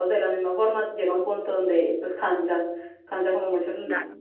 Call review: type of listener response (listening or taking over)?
taking over